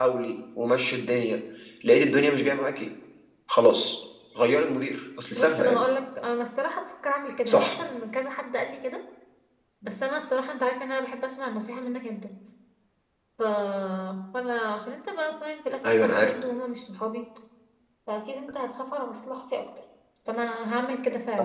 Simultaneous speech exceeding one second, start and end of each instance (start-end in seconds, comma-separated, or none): none